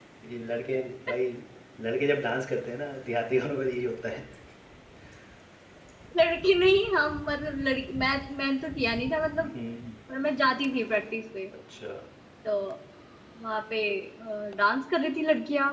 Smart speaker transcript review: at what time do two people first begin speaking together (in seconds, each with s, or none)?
none